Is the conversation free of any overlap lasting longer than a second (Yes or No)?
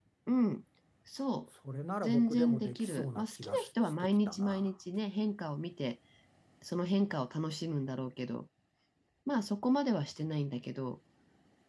No